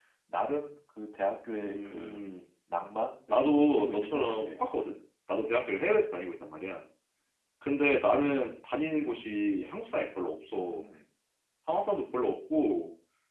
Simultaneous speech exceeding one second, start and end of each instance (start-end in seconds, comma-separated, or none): 3.3-4.5